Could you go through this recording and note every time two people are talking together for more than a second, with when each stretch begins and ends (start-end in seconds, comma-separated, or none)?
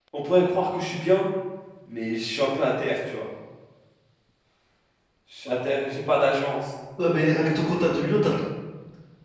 none